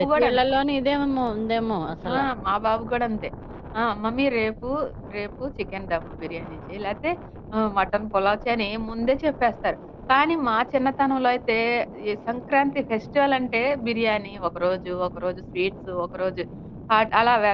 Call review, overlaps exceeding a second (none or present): none